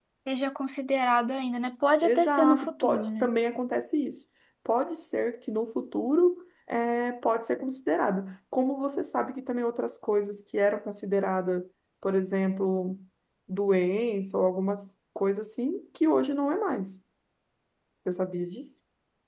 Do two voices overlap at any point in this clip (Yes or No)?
Yes